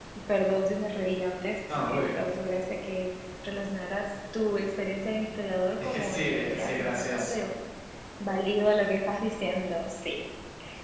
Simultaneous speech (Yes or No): Yes